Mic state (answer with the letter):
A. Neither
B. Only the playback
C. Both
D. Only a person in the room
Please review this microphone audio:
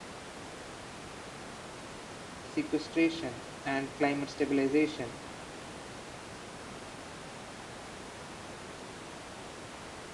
D